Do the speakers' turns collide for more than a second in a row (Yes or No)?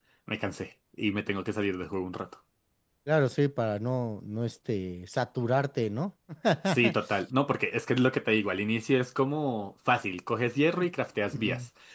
No